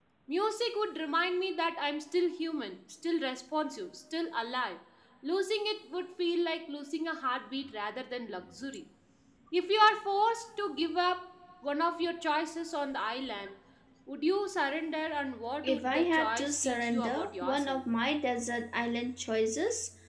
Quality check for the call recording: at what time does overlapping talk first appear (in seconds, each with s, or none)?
15.6 s